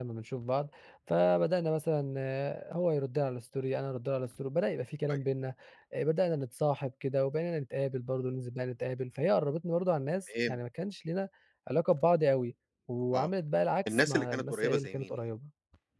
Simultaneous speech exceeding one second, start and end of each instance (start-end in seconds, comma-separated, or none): 13.9-15.2